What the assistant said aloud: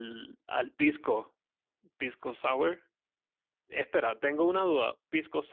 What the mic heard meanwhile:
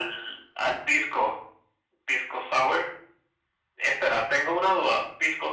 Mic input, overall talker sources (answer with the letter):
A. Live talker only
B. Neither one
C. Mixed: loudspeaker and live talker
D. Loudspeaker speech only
D